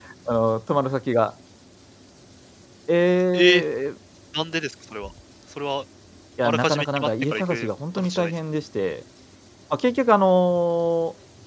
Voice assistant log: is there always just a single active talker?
No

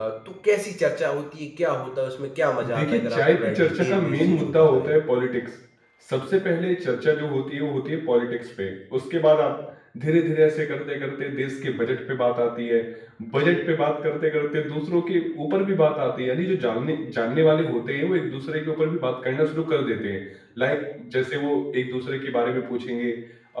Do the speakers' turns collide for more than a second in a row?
Yes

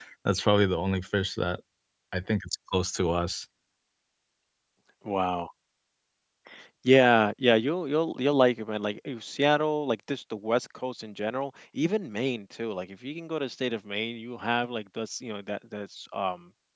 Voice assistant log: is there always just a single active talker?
Yes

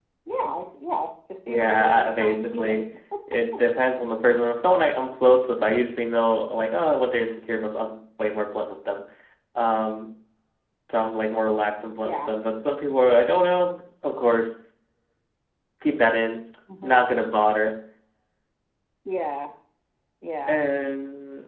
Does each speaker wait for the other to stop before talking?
No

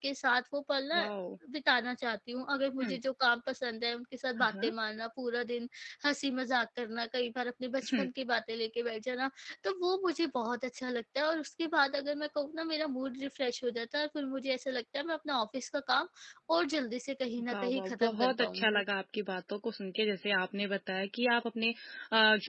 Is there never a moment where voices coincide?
No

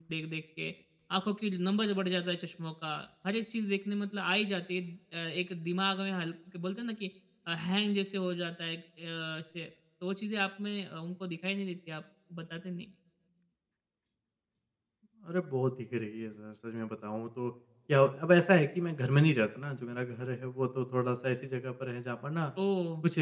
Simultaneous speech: No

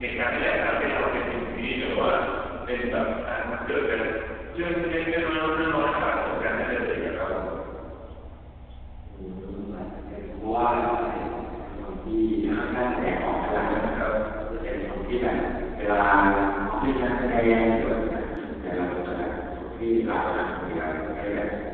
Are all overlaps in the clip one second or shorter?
Yes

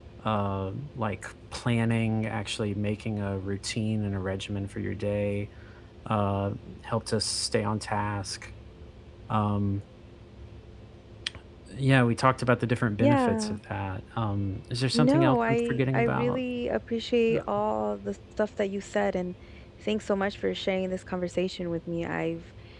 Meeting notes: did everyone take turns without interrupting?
No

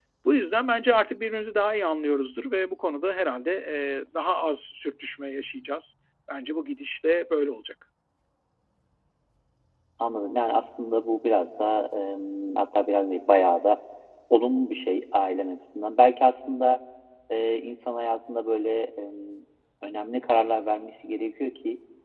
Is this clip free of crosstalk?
Yes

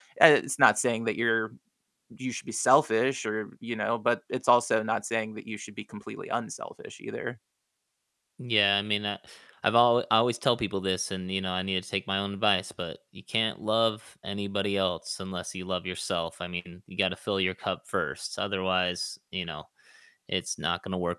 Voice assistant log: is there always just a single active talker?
Yes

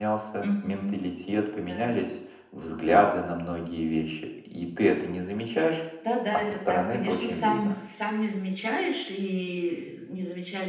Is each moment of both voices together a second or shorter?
No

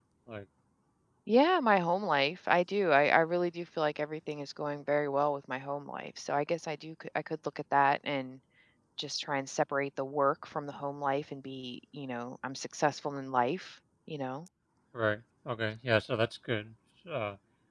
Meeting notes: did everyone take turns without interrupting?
Yes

